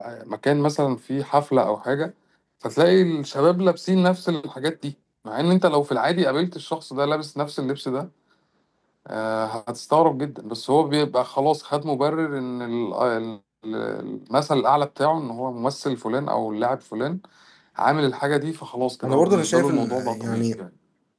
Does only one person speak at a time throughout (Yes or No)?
No